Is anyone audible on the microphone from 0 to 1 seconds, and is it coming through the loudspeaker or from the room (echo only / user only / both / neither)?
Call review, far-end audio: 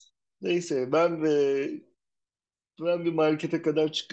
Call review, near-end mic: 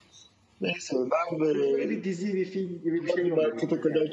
echo only